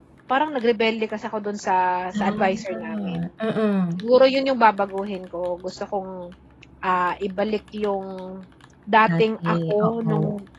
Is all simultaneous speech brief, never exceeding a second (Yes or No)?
No